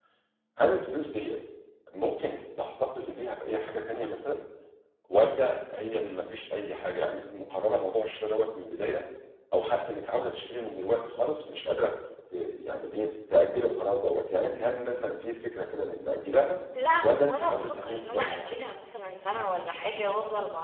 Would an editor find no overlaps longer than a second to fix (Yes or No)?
No